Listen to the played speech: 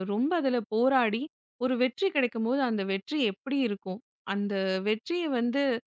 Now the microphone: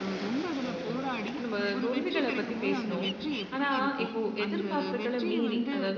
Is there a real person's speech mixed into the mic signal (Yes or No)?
Yes